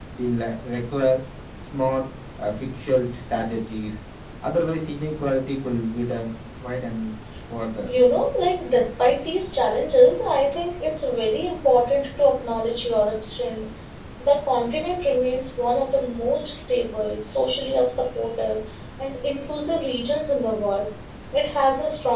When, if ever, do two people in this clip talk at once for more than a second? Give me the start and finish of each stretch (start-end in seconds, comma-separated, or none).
none